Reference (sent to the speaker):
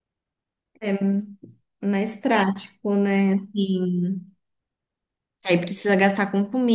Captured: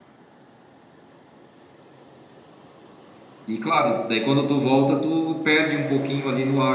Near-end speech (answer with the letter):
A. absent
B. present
B